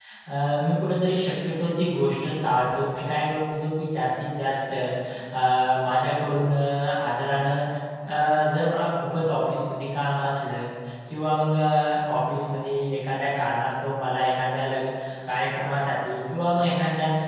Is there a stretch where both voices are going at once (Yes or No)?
No